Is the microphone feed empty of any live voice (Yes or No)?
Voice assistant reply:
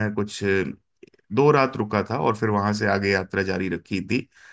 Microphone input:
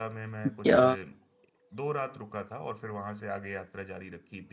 No